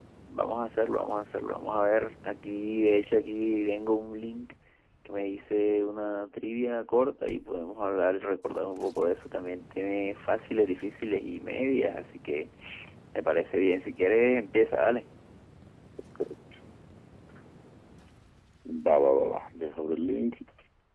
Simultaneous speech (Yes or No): No